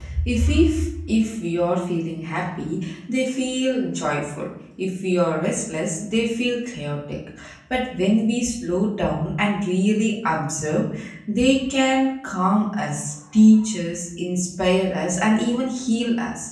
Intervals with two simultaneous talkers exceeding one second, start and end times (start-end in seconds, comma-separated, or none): none